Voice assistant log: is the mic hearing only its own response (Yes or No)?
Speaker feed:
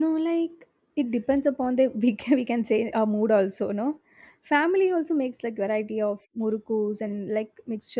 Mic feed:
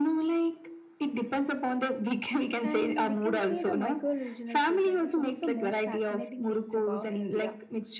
No